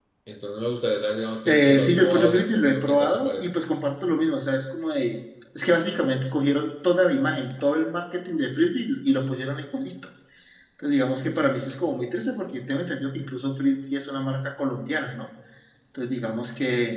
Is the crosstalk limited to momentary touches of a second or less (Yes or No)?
No